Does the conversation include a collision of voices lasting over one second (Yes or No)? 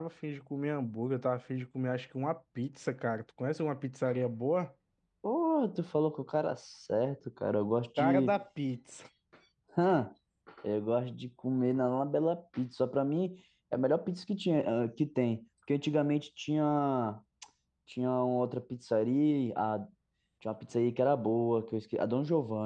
No